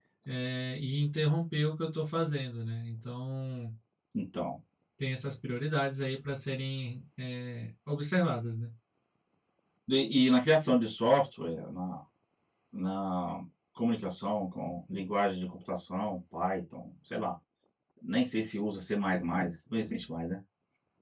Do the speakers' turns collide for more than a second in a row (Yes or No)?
No